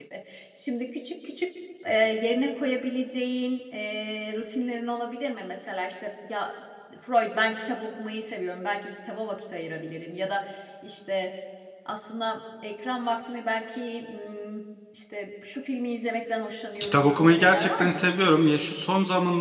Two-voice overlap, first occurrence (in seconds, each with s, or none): 16.8 s